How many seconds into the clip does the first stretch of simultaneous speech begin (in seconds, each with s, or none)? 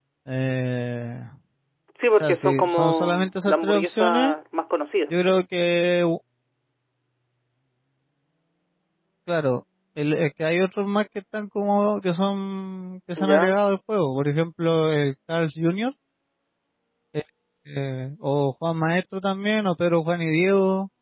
2.2 s